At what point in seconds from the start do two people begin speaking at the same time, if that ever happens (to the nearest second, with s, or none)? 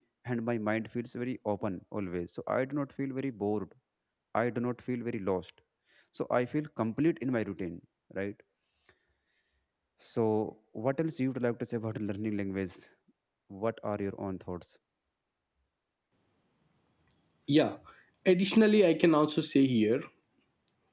none